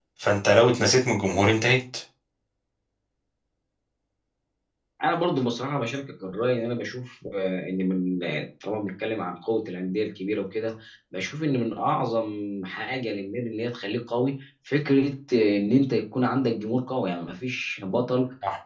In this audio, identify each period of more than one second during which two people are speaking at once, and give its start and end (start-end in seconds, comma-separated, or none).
none